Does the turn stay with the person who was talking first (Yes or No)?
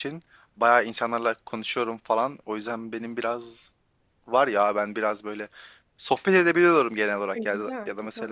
Yes